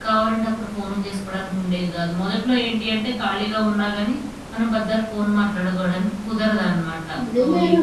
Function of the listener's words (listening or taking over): taking over